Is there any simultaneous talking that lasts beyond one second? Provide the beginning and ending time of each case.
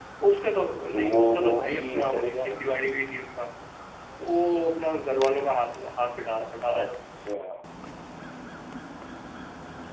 0.9-3.2

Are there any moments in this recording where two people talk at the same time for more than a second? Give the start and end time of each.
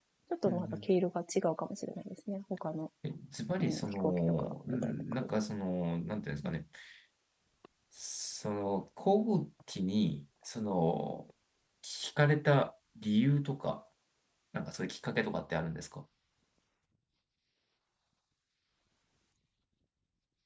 3.6-4.9

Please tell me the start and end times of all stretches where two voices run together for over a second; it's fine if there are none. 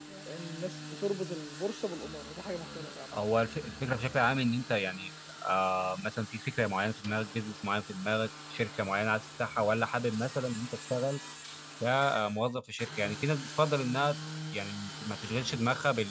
none

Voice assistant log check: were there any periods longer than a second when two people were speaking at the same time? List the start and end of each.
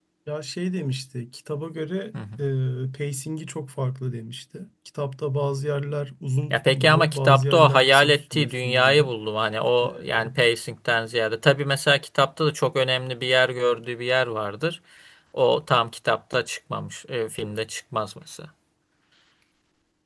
6.5-9.1

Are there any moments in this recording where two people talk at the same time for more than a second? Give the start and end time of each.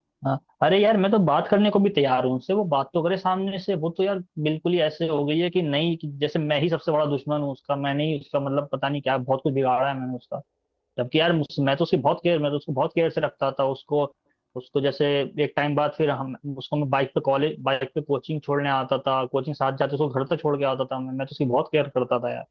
none

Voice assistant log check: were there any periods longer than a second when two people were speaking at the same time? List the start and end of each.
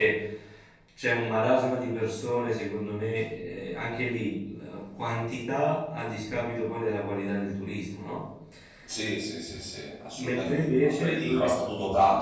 10.2-11.5

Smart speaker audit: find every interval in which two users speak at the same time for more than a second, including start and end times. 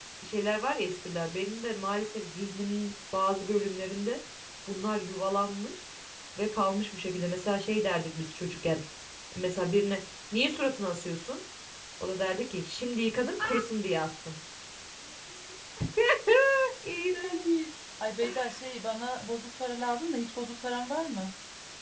none

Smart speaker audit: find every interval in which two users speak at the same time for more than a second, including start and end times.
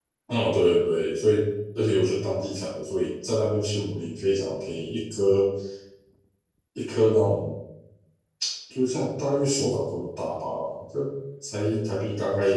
none

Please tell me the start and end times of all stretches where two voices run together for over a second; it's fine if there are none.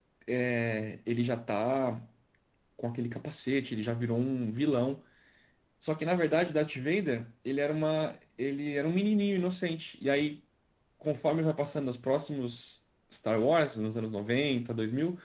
none

